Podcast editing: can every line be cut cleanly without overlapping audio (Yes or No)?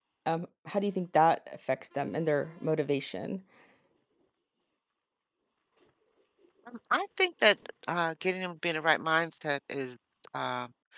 Yes